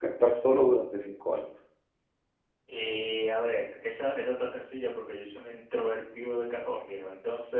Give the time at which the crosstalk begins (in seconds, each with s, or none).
none